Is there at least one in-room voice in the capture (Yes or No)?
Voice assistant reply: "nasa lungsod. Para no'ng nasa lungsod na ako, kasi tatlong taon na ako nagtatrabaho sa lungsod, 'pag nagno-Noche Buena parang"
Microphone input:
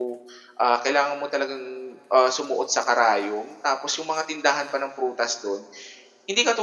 Yes